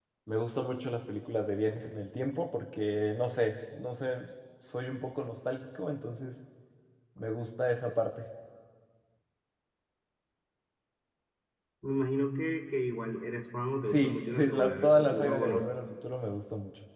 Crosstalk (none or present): present